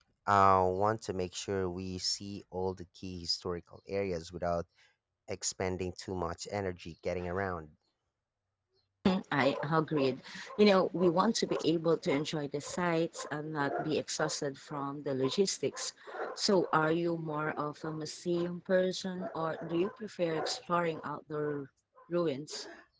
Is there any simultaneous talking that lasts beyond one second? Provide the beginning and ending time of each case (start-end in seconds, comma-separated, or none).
none